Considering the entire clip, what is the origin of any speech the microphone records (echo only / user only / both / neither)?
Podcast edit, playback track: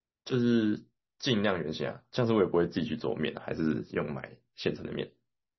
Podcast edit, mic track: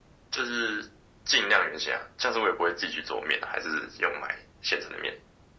echo only